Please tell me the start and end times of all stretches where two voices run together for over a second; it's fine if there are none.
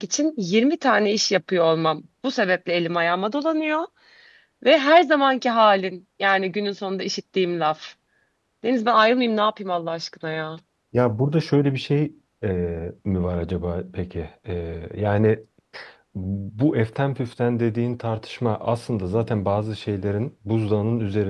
none

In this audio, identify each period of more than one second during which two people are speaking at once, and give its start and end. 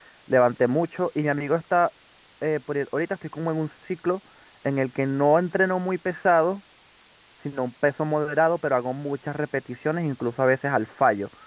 none

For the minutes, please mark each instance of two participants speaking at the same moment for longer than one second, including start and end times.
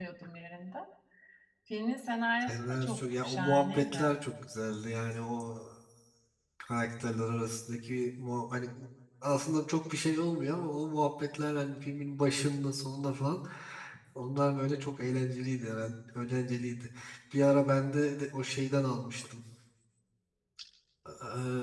2.4-4.0

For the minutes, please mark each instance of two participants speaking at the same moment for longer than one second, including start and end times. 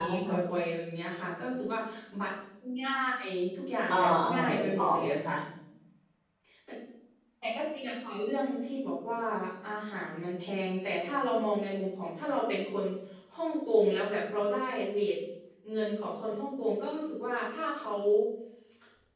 3.9-5.3

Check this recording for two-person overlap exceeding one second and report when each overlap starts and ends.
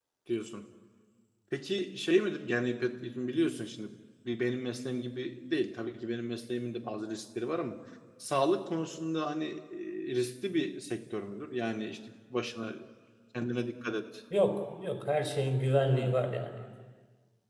none

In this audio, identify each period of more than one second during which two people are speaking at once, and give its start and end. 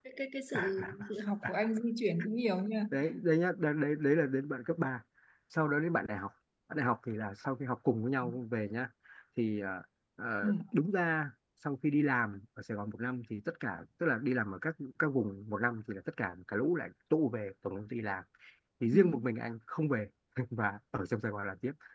none

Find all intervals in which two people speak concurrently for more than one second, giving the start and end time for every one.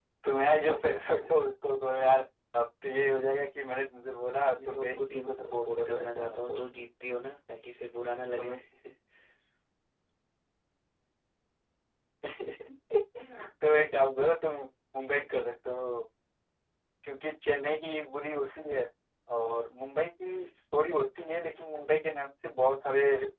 4.6-6.6

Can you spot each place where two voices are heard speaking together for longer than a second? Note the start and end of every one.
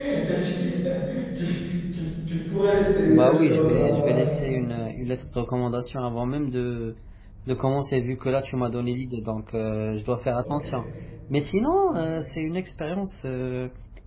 3.1-4.3

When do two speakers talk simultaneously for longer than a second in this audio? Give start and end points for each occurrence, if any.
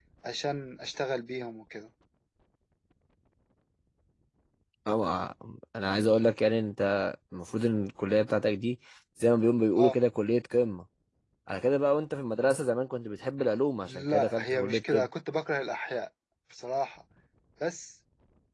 13.9-15.1

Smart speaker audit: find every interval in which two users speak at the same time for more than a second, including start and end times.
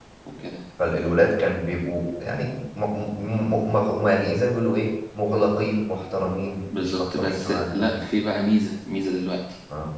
6.8-8.0

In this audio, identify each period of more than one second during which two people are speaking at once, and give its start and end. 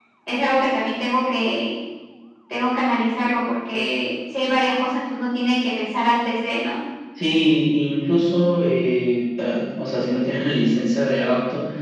none

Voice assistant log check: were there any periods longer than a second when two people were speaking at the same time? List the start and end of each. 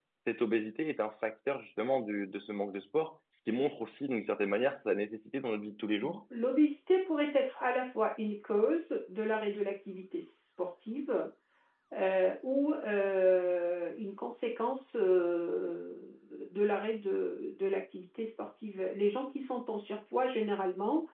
none

